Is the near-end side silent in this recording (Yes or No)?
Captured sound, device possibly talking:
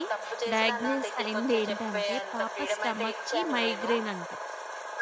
No